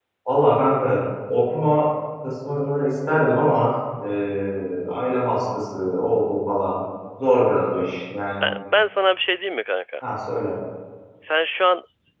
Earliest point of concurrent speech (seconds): none

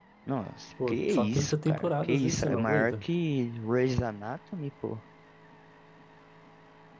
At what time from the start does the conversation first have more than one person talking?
1 s

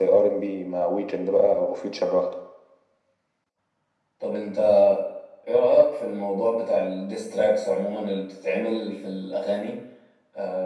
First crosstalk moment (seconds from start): none

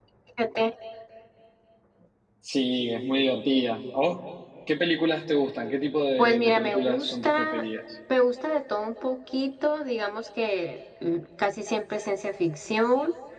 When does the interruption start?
6 s

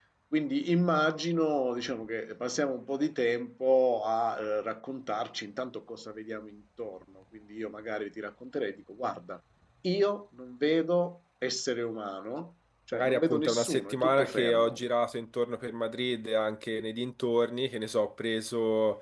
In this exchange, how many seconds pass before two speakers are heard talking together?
13 s

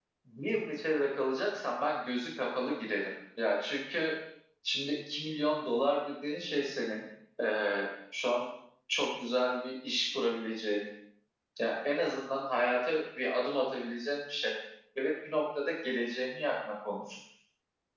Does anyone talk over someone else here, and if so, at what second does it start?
none

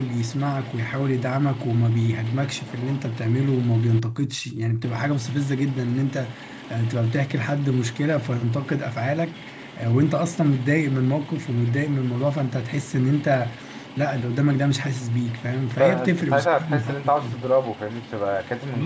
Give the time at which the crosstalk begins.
16 s

